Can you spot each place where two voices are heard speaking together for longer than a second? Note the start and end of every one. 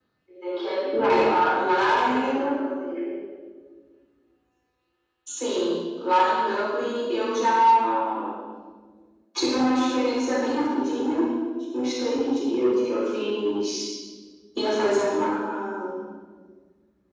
0.9-2.3

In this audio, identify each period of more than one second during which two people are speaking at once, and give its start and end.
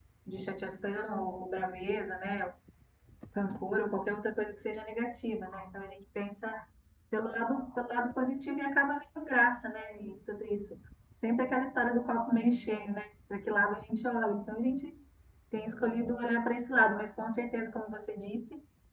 none

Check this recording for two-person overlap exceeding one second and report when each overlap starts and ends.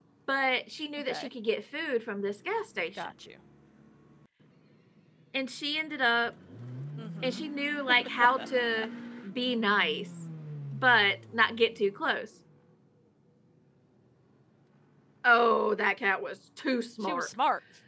none

